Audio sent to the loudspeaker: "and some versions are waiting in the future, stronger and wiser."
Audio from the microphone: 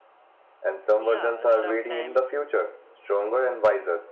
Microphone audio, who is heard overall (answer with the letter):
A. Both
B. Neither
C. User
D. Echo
A